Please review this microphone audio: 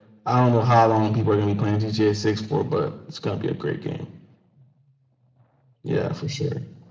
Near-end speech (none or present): none